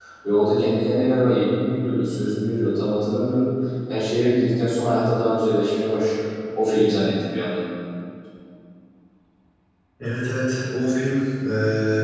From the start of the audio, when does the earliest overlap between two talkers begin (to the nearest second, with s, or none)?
none